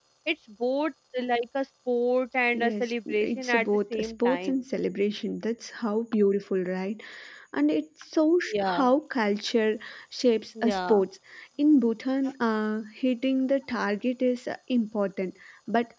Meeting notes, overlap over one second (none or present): present